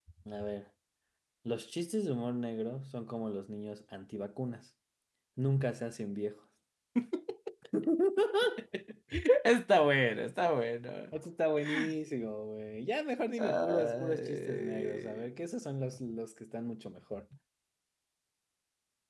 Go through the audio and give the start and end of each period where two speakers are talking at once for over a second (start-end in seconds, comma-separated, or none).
13.4-15.2